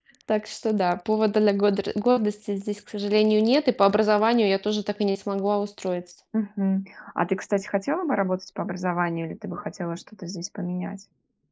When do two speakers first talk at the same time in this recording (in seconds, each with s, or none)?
none